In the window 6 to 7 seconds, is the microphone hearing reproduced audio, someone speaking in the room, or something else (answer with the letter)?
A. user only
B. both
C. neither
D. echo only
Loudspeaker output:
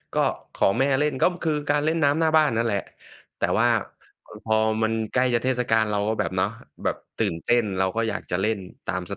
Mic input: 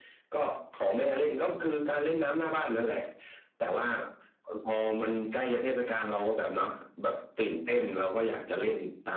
D